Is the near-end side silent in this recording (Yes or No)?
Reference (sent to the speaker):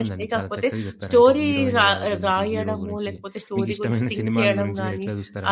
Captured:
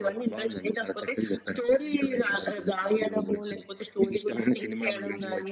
Yes